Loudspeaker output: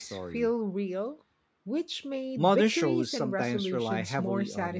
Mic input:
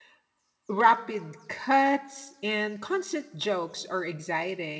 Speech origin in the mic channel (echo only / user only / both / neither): user only